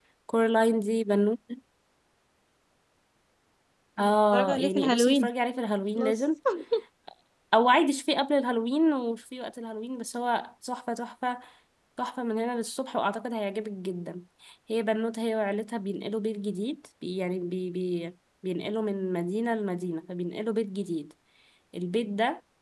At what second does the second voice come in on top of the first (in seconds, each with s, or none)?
4.0 s